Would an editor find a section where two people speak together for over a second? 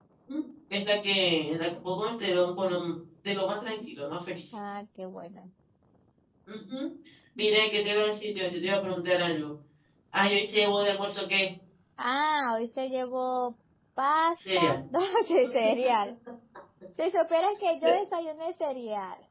No

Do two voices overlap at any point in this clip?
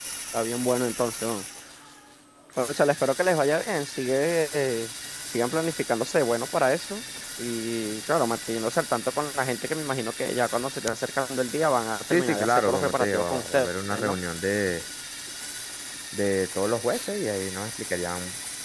Yes, from 12.1 s

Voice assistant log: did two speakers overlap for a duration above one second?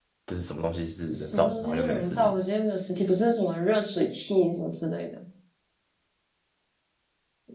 Yes, from 1.1 s

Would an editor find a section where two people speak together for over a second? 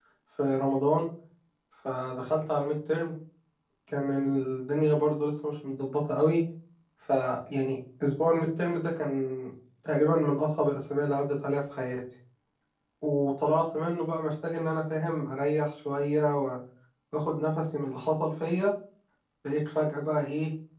No

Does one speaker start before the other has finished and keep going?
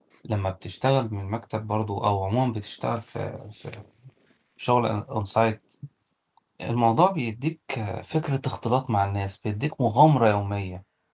No

